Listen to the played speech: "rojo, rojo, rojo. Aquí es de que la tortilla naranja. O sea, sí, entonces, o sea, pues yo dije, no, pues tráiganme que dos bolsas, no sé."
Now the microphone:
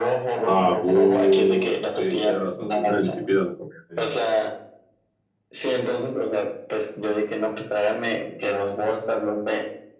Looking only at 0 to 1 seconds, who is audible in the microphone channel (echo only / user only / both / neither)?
both